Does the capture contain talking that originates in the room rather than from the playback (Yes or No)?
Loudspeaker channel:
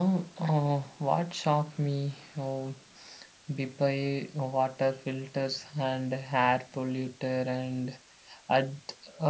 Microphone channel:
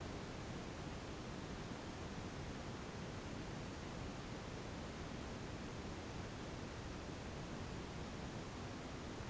No